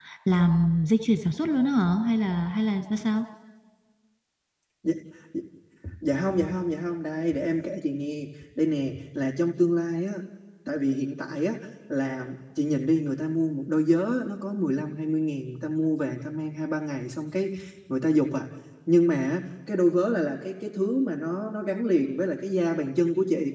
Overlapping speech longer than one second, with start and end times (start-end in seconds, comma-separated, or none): none